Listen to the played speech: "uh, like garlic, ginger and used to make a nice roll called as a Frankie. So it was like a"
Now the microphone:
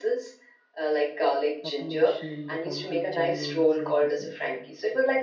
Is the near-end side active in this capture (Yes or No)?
Yes